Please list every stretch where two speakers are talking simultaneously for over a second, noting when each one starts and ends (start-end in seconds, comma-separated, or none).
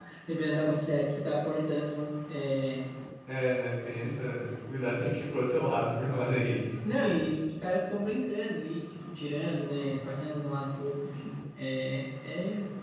none